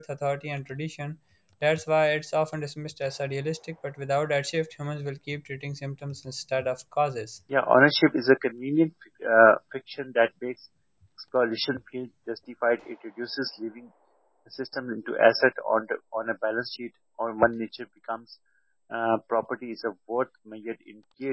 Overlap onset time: none

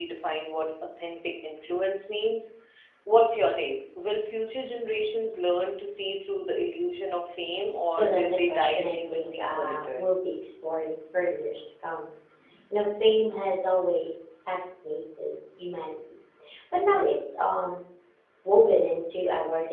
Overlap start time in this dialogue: 7.9 s

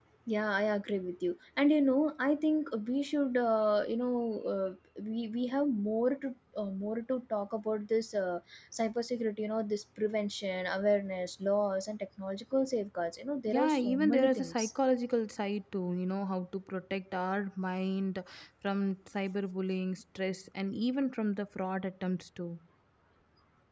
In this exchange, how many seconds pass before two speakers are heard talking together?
13.5 s

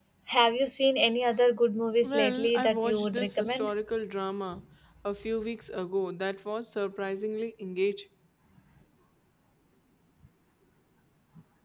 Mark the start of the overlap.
2.0 s

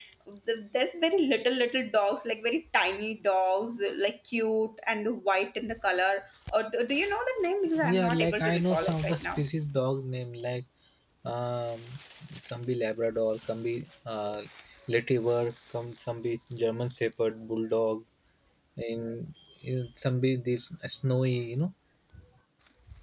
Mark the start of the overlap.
7.8 s

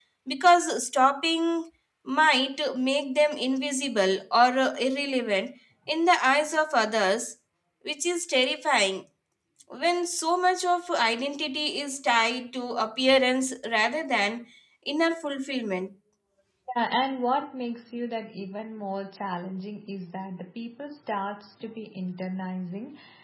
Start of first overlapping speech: none

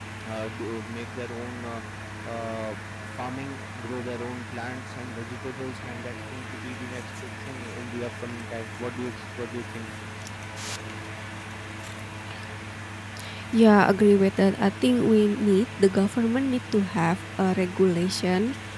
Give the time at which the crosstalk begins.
none

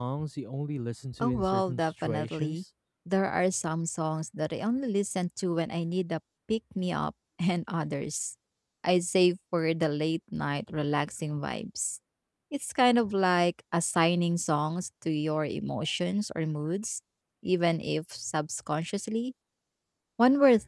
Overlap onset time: 1.2 s

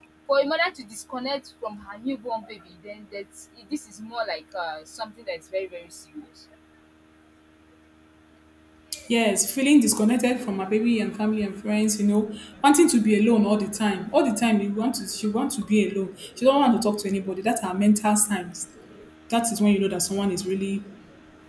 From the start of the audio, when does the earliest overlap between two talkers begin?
none

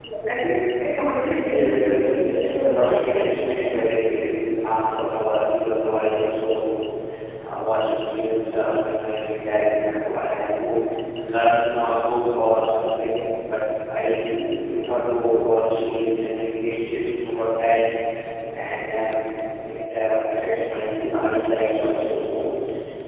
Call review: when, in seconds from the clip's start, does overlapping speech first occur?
1.5 s

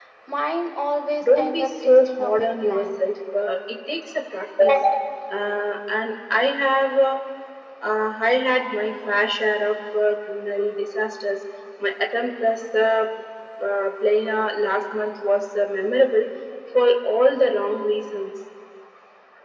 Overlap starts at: 1.2 s

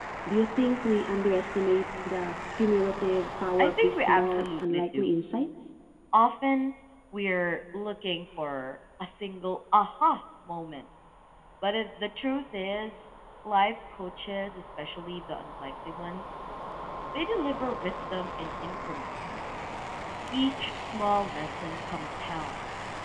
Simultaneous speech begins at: 3.6 s

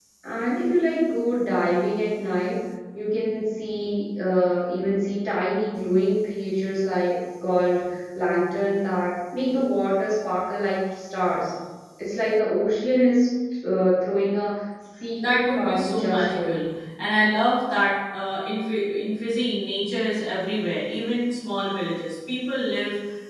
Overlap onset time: 15.2 s

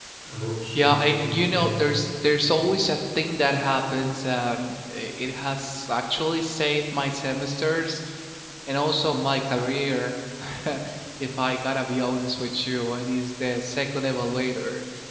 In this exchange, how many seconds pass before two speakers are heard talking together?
0.8 s

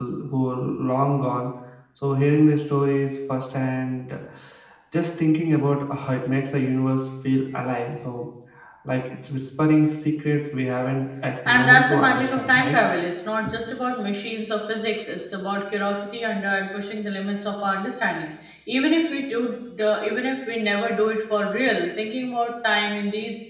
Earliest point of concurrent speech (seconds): 11.4 s

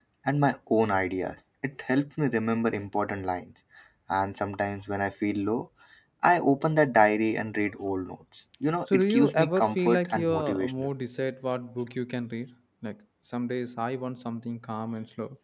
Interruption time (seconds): 8.9 s

